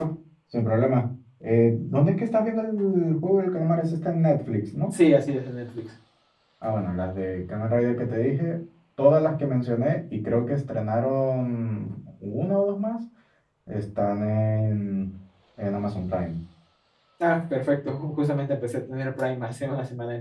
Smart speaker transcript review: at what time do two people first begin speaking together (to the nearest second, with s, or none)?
none